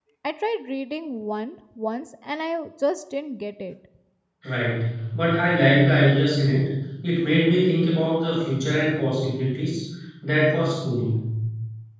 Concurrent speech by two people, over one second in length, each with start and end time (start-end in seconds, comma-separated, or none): none